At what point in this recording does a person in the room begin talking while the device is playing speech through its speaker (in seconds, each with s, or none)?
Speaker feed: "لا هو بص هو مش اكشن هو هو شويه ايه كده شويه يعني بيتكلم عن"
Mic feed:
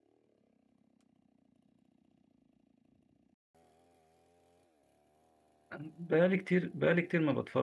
5.8 s